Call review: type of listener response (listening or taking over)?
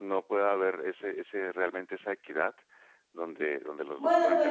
taking over